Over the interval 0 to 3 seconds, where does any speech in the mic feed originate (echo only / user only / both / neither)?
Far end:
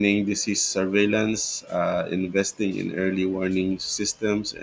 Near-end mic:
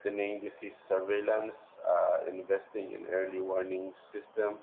echo only